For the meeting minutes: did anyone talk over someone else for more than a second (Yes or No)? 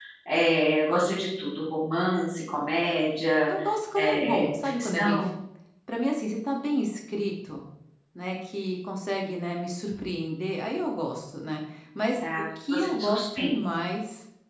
Yes